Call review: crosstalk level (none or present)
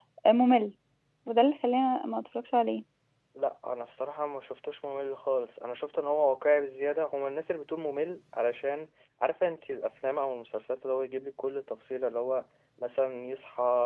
none